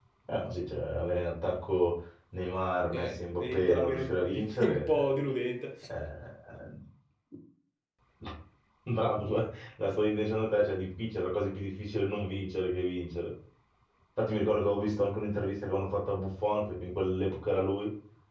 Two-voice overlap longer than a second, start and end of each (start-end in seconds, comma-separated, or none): 2.9-5.2